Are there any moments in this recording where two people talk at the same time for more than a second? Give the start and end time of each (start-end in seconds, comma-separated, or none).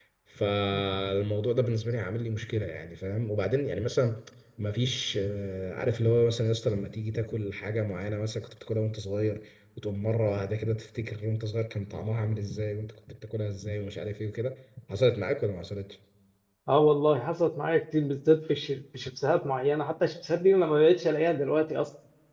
none